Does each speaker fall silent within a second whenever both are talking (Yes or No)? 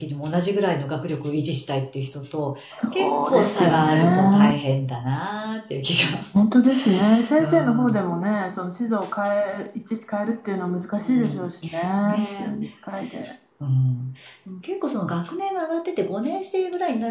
No